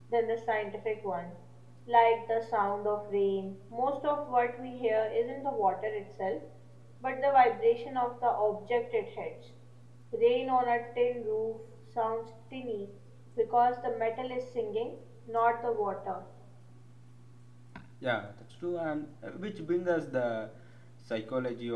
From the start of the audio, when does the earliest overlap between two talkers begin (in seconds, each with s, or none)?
none